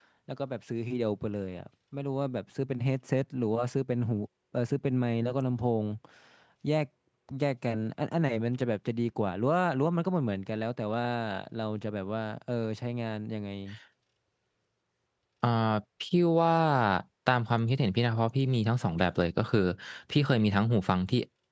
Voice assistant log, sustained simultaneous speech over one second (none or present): none